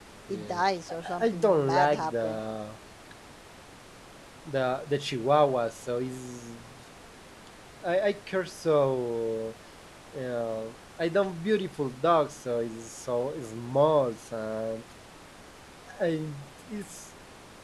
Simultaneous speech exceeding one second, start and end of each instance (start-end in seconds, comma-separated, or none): 1.2-2.4